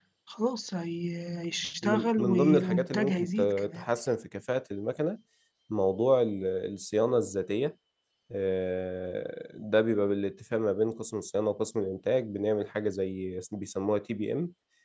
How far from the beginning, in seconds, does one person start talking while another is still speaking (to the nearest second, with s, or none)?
2 s